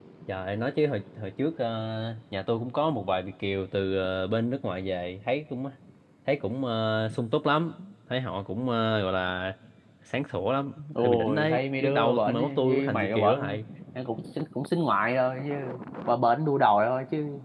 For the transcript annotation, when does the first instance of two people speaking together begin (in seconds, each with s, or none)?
10.8 s